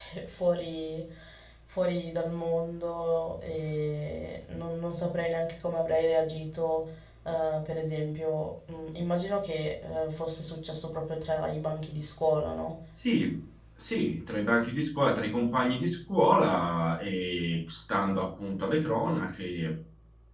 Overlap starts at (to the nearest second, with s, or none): none